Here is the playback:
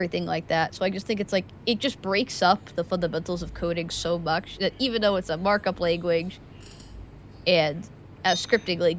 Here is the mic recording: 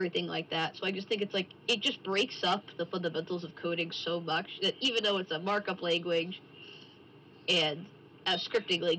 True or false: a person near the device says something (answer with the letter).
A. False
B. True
A